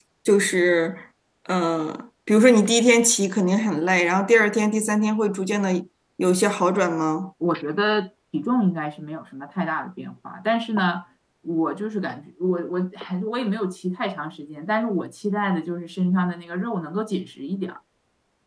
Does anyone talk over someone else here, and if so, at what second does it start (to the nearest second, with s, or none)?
none